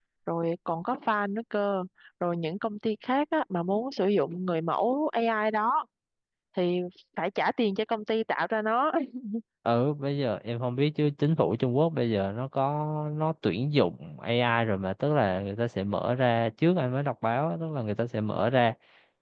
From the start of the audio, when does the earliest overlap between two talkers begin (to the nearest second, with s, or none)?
none